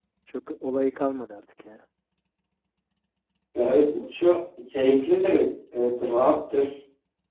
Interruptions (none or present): none